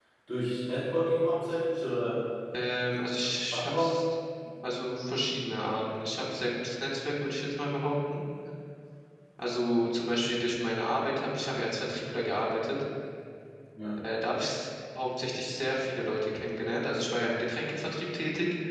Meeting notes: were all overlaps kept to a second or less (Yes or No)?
Yes